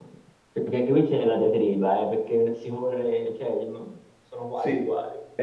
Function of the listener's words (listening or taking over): taking over